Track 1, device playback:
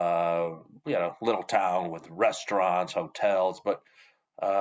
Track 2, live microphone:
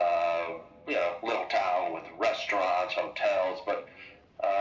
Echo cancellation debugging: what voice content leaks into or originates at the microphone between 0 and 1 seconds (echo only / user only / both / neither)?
echo only